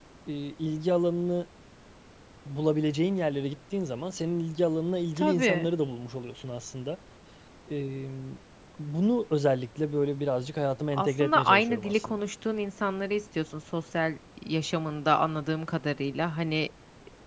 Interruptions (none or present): present